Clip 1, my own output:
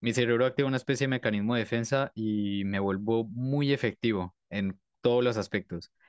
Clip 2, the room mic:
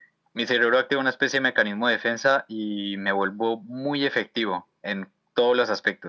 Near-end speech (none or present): none